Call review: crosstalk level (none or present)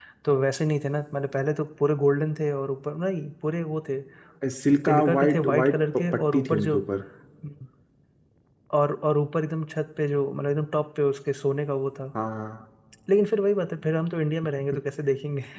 present